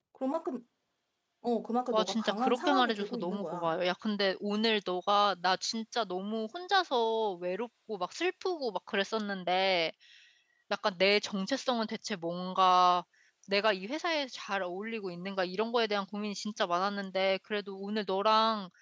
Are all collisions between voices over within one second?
No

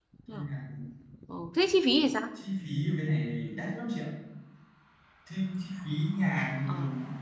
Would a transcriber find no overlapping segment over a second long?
Yes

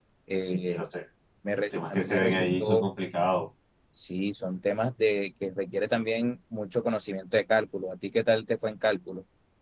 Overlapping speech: Yes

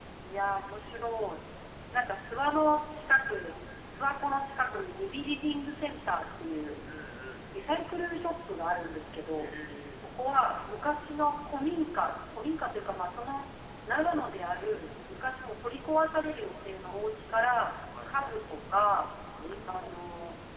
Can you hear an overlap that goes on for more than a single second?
No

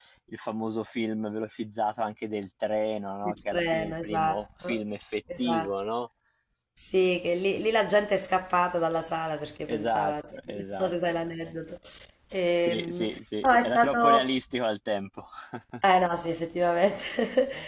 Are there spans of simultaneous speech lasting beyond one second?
Yes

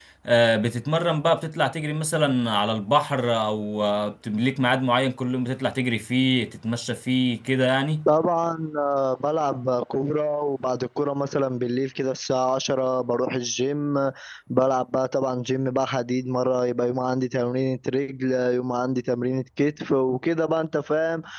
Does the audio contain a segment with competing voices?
No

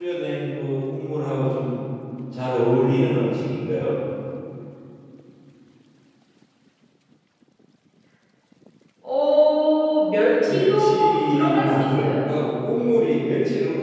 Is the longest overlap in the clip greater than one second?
Yes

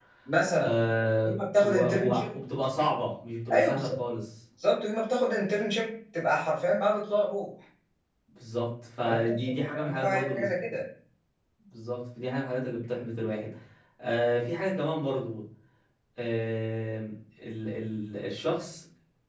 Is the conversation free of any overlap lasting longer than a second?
No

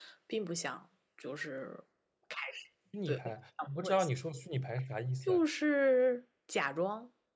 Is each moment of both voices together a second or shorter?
Yes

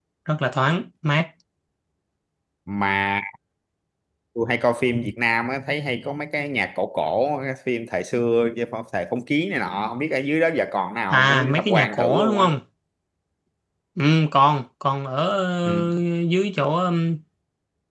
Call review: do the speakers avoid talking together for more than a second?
No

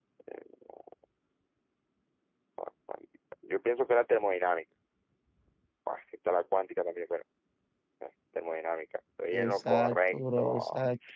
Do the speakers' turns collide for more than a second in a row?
Yes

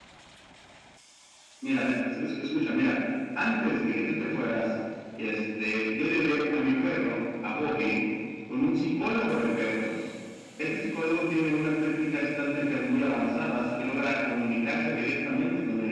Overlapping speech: No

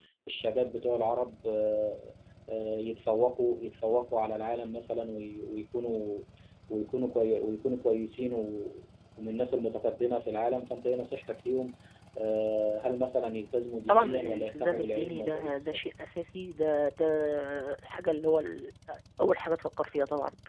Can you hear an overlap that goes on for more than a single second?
Yes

